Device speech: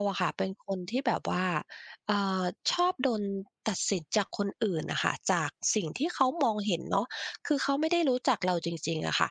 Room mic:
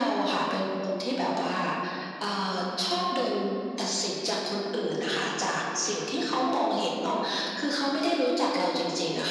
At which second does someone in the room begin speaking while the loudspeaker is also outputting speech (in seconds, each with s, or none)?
none